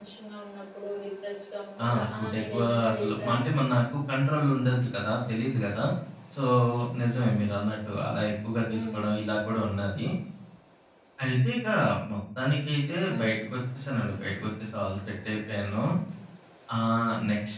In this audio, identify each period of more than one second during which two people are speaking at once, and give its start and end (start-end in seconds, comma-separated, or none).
1.8-3.4